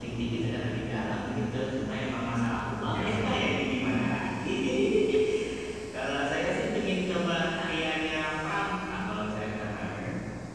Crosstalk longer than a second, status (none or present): present